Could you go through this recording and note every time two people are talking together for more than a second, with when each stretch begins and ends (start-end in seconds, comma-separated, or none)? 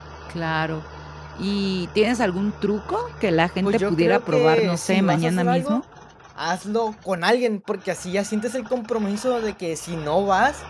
3.6-5.8